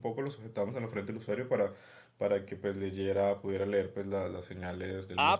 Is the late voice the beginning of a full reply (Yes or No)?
Yes